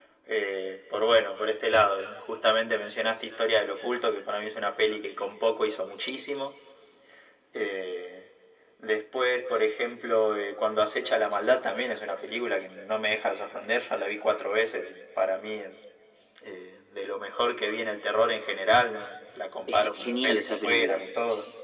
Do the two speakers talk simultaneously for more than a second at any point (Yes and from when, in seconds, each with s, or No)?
Yes, from 19.7 s